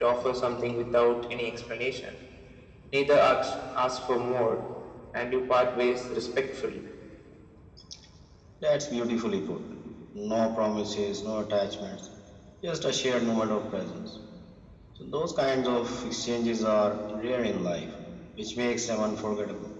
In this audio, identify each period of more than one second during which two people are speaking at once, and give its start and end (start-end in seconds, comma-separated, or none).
none